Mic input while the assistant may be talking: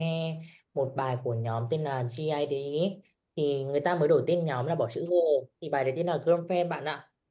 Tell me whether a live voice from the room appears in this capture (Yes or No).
Yes